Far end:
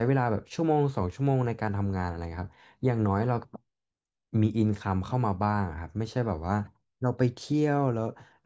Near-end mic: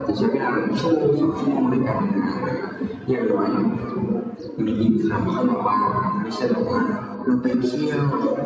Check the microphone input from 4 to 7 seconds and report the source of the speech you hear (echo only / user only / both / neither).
echo only